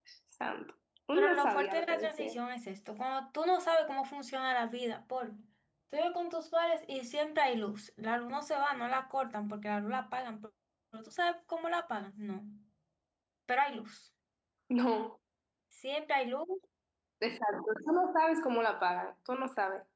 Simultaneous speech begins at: 1.1 s

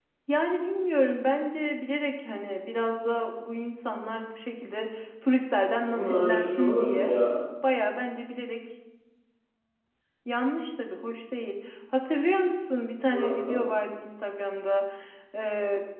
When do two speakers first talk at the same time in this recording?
5.9 s

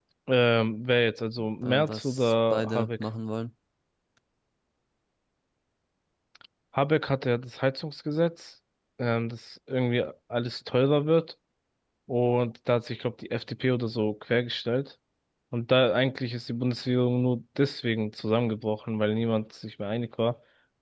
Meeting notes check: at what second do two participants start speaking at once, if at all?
1.4 s

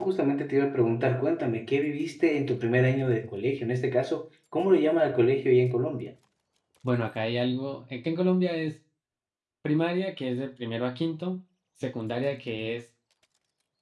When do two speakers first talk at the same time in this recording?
none

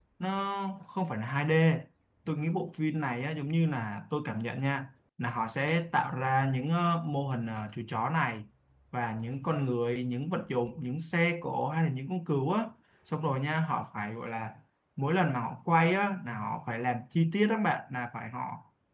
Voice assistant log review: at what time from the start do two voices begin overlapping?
none

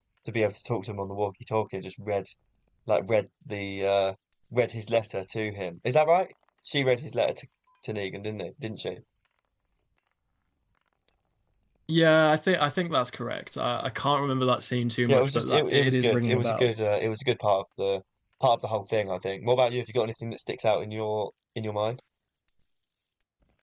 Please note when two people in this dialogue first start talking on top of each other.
15.1 s

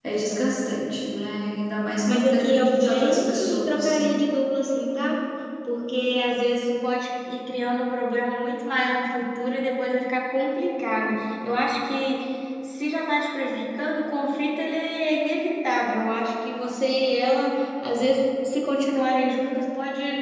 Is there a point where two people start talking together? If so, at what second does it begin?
2.1 s

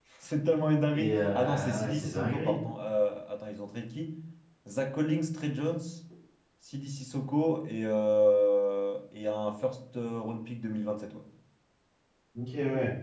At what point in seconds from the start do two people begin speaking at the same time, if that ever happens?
0.9 s

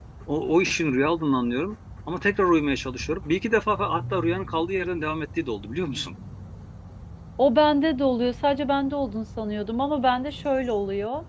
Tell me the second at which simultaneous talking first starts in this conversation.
none

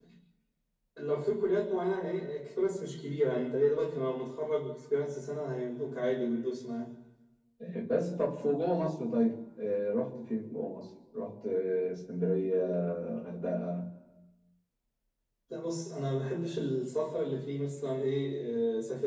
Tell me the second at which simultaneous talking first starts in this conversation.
none

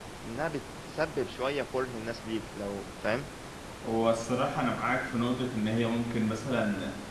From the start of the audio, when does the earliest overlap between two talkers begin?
none

